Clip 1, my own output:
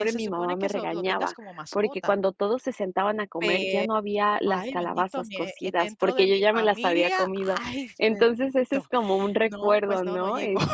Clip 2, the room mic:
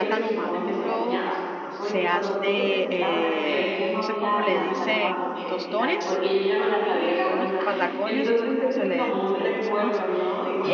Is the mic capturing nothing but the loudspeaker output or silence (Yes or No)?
No